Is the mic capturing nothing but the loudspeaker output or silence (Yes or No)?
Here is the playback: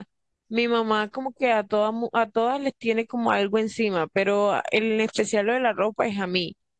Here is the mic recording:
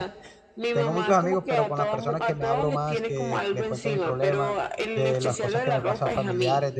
No